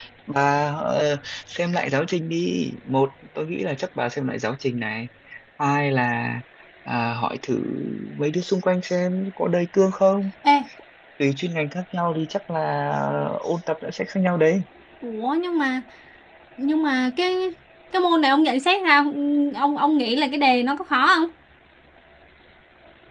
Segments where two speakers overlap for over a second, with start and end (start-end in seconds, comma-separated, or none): none